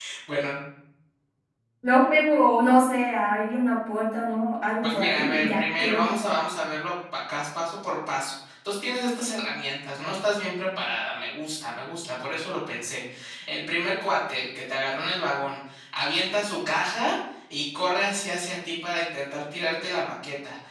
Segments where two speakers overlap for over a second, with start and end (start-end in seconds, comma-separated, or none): 4.8-6.1